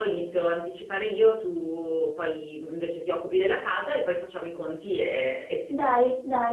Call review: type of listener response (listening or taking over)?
taking over